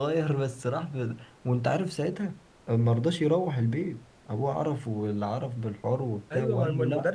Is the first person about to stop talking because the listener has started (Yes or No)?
Yes